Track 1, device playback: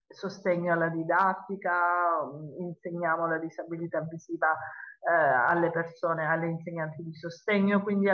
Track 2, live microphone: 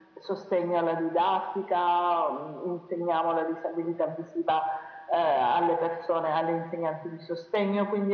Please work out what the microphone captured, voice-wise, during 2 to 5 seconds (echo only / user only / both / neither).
echo only